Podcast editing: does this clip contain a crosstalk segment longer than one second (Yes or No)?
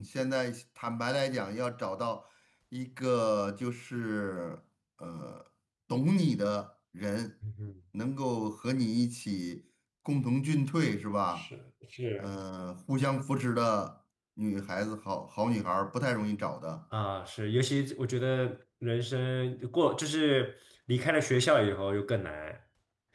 No